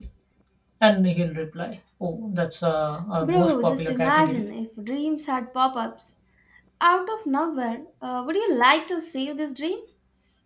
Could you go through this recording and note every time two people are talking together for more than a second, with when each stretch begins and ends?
3.2-4.5

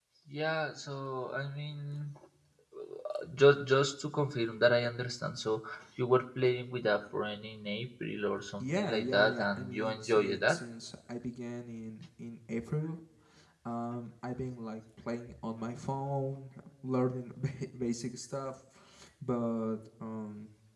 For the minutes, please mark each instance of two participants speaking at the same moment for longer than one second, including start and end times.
8.6-10.6

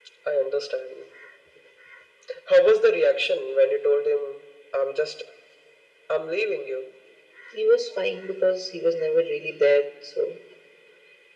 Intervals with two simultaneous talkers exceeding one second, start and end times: none

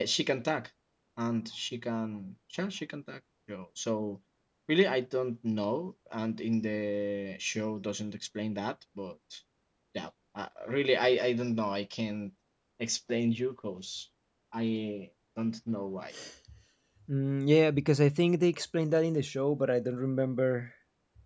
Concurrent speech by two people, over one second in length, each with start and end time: none

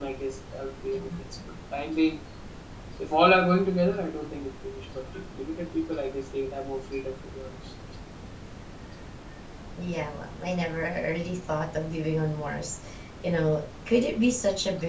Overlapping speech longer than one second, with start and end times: none

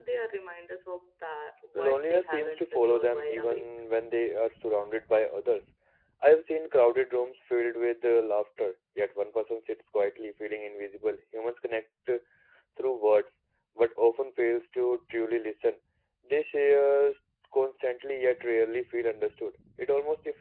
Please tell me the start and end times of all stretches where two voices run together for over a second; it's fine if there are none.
1.8-3.6

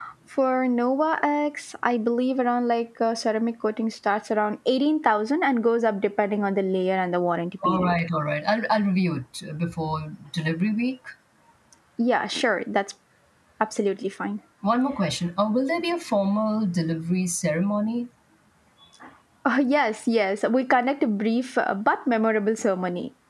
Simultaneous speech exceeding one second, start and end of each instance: none

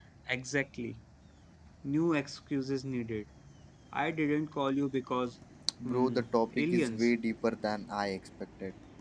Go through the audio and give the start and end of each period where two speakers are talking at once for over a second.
5.8-7.1

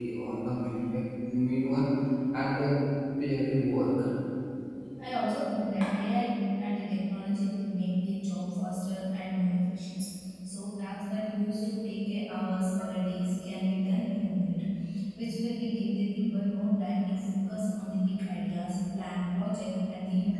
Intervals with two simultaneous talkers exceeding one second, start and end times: none

